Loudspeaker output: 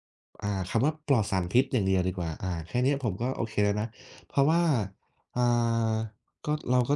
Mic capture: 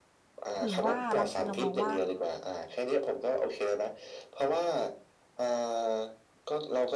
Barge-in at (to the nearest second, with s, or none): 1 s